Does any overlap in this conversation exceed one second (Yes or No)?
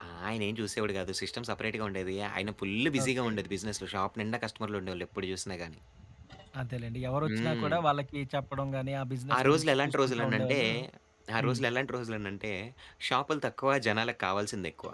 Yes